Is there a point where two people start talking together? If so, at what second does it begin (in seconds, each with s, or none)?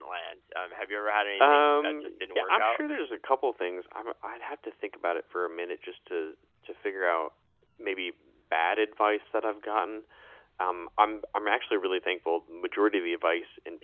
1.4 s